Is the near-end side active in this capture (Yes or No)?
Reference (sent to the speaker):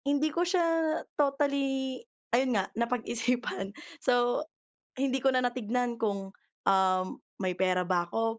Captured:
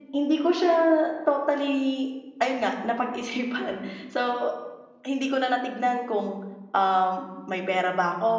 No